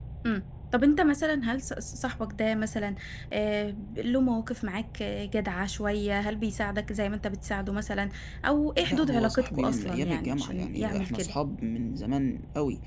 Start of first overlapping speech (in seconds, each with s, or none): 8.8 s